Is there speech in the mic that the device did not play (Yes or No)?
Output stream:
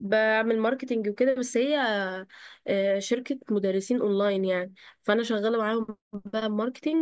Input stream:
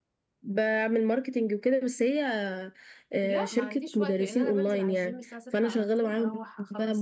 Yes